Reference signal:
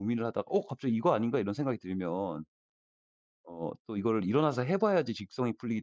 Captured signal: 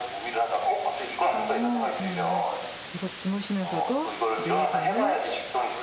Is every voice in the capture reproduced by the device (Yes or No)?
No